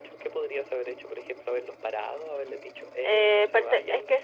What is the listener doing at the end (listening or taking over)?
taking over